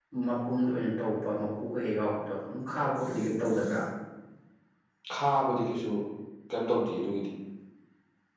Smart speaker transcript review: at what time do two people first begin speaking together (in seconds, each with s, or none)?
none